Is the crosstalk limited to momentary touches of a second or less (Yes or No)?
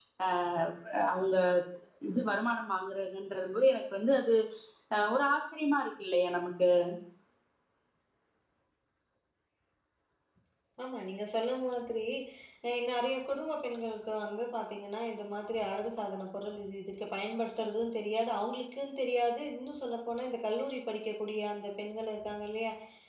Yes